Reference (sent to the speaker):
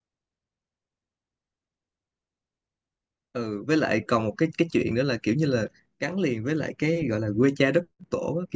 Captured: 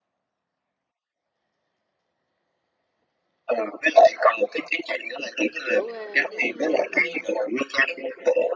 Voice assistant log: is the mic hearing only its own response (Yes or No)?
No